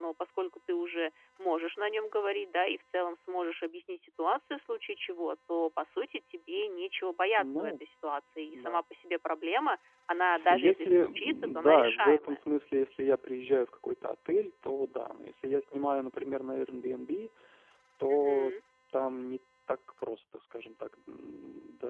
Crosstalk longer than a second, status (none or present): present